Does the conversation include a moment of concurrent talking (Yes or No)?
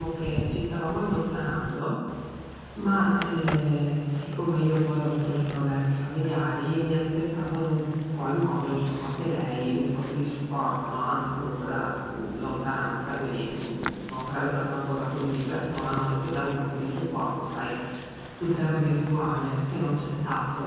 No